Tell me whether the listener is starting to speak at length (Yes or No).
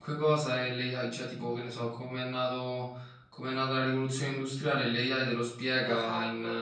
No